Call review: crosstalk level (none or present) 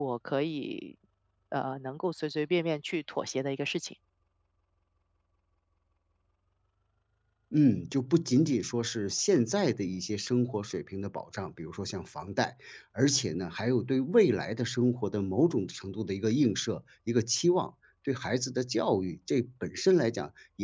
none